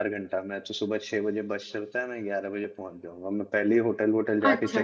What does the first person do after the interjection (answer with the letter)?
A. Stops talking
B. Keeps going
A